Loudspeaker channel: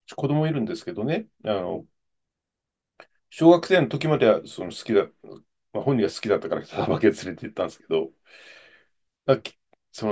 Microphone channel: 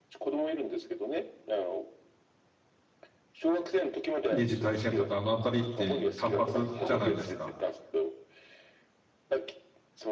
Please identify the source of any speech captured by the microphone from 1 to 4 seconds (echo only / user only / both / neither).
echo only